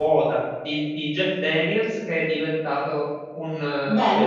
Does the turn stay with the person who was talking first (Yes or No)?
No